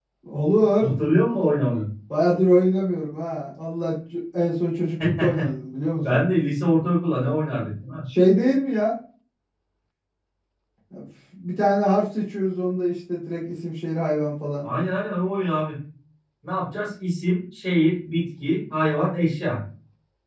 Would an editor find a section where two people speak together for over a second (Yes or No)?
No